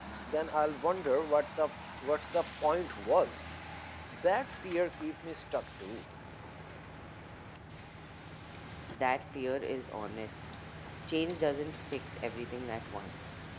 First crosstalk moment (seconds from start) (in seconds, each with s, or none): none